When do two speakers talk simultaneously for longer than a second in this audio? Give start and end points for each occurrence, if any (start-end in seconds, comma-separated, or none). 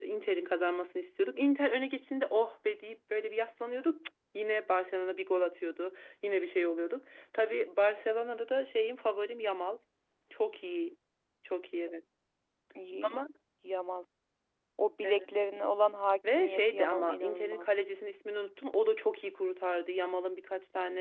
16.4-17.7